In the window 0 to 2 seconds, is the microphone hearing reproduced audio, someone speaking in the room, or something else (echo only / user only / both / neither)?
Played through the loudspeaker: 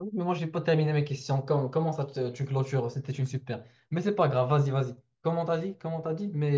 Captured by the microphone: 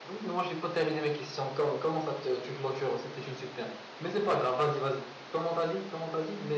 echo only